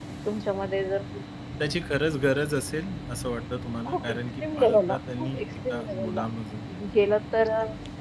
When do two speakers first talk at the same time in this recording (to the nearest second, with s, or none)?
4 s